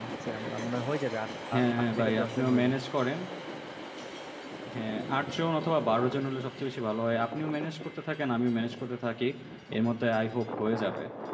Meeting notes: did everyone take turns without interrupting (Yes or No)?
No